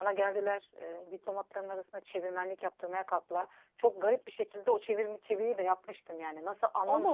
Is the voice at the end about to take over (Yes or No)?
No